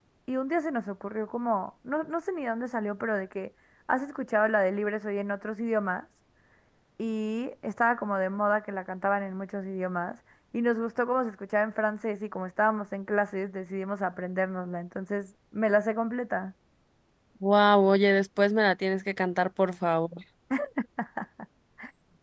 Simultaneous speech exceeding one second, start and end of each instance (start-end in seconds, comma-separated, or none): none